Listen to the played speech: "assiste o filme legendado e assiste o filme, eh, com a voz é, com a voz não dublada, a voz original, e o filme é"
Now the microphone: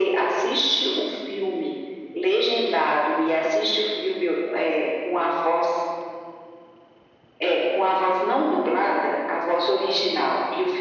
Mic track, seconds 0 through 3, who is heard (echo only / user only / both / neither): echo only